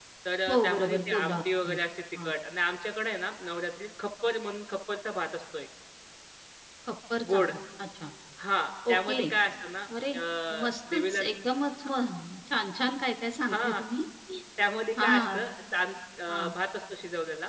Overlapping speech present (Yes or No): Yes